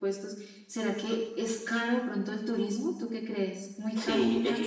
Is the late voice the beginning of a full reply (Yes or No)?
Yes